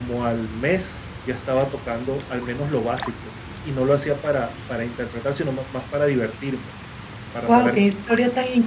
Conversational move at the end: taking over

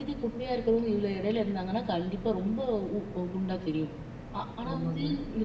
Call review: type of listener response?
listening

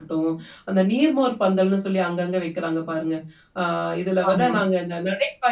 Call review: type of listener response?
listening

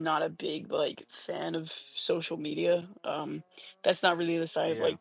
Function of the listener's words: listening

